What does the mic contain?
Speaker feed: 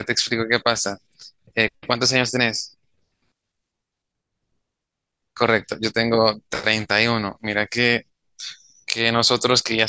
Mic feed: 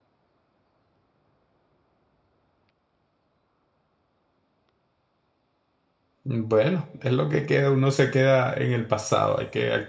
user only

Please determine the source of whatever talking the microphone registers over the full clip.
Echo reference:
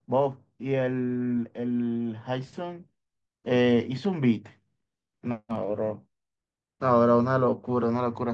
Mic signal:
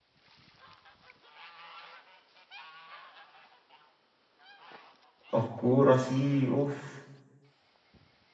user only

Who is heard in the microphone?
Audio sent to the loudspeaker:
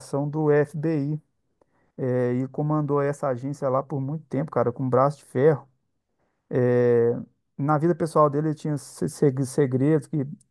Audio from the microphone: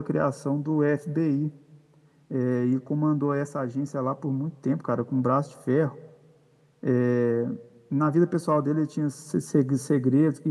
echo only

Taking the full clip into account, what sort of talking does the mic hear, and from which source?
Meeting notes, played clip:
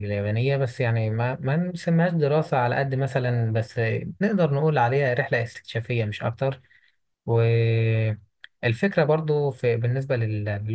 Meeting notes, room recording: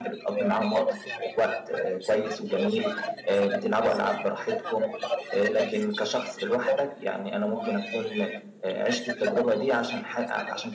both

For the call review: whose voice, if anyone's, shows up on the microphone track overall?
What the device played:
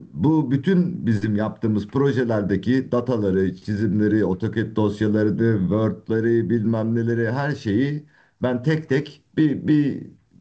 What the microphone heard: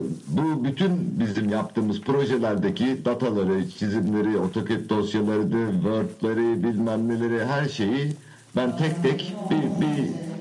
both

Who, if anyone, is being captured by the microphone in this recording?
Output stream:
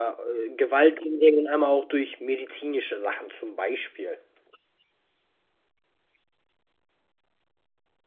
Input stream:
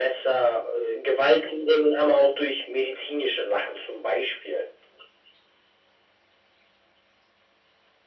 echo only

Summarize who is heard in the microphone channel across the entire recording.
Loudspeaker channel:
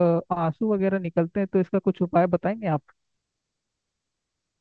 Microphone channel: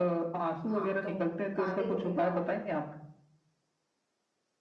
both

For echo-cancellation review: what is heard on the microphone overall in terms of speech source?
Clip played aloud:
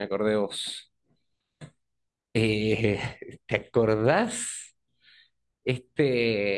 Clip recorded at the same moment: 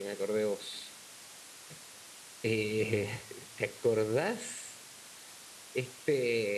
both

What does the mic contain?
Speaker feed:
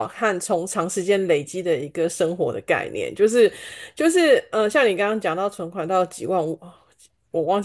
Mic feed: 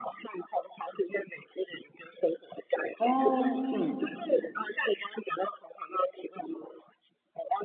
both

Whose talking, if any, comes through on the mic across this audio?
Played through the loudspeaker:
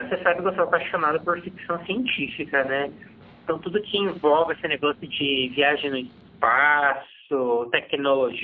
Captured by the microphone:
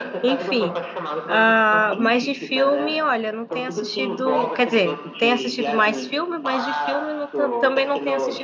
both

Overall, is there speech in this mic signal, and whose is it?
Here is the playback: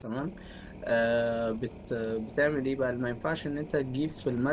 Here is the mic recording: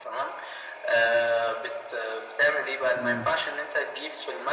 both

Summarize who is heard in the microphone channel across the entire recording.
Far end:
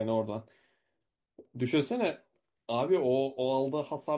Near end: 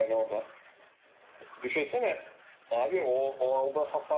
echo only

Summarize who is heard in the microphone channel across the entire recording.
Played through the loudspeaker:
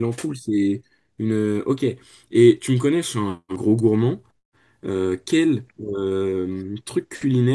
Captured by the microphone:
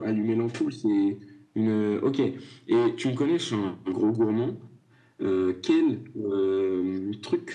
echo only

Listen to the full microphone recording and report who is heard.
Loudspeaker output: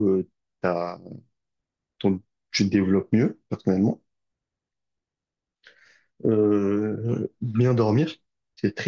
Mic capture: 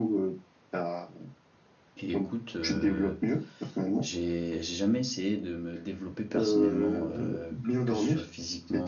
both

